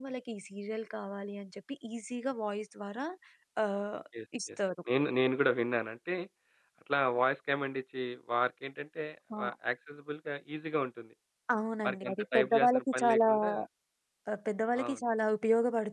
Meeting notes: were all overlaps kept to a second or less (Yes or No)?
No